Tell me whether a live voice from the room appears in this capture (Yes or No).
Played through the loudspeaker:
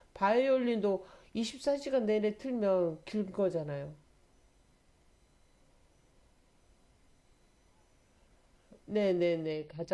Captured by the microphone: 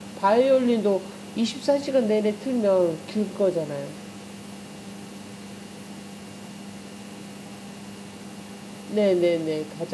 No